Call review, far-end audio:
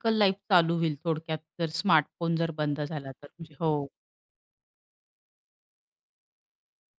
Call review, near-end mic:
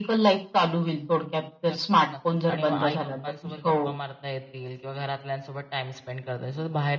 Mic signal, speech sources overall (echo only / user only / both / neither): both